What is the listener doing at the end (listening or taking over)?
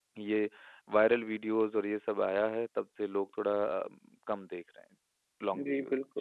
taking over